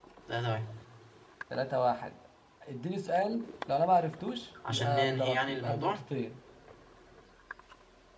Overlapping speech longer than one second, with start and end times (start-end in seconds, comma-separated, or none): 4.7-6.0